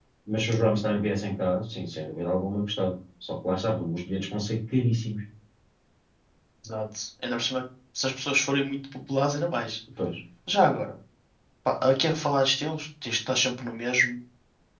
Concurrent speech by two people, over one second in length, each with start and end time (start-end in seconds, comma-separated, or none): none